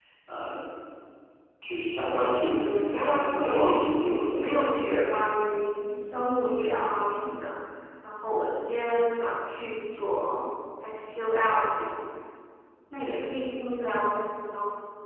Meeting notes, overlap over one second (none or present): present